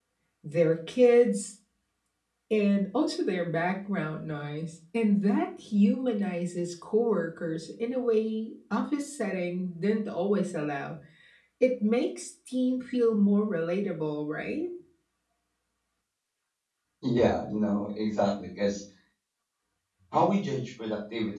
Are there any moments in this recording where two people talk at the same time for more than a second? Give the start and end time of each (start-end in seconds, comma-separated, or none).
none